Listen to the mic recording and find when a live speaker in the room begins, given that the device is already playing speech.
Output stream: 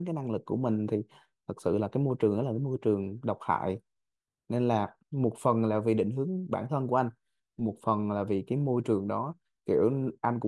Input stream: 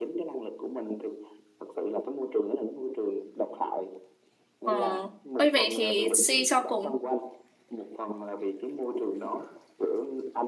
4.6 s

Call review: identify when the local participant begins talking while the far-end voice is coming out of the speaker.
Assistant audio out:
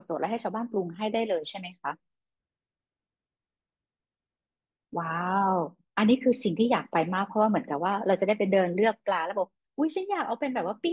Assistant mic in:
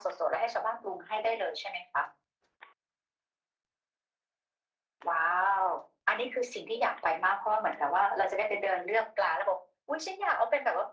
none

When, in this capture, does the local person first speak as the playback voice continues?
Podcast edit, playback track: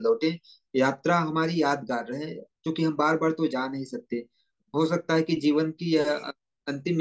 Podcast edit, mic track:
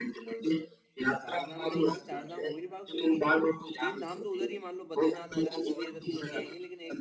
1.2 s

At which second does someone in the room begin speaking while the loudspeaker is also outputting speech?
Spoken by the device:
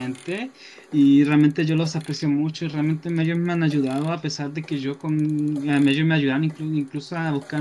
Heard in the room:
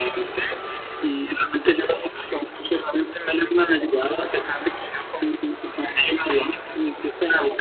none

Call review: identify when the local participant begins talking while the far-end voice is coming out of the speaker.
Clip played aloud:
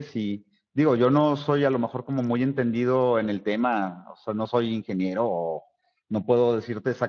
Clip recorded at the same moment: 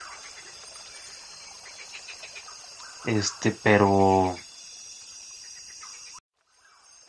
3.0 s

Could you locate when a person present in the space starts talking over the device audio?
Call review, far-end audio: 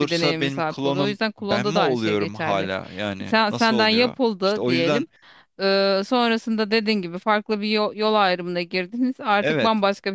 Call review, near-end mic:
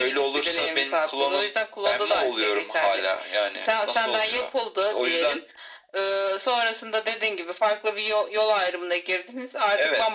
none

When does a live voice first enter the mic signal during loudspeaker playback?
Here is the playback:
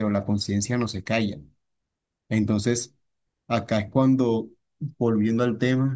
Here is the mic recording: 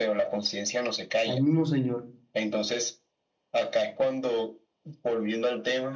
1.2 s

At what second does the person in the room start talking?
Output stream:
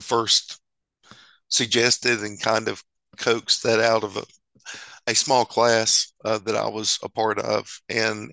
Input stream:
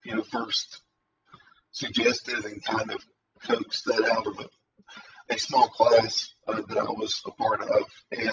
none

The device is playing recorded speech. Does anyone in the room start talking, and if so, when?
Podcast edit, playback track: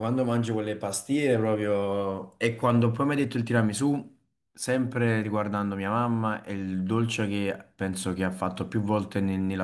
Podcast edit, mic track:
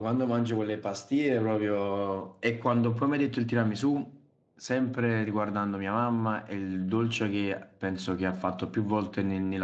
none

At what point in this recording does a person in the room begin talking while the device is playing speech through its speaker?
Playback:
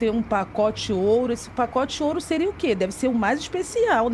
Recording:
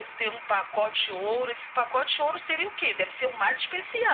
none

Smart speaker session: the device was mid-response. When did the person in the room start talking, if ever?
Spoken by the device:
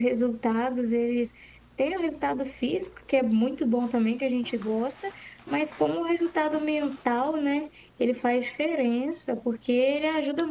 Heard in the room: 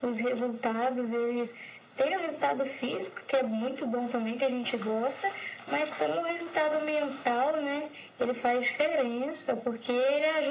none

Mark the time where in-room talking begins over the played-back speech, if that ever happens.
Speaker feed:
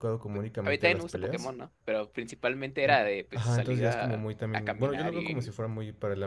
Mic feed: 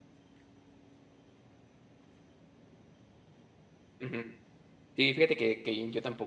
4.0 s

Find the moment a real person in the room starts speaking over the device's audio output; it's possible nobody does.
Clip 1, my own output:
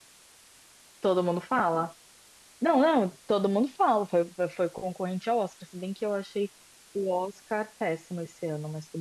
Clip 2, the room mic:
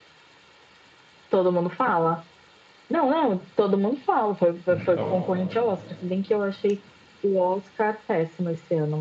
4.7 s

